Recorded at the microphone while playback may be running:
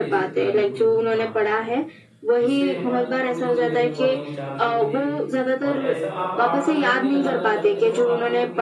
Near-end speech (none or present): present